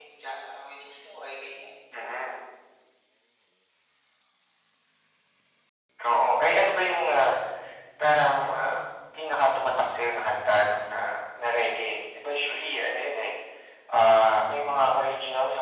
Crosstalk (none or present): none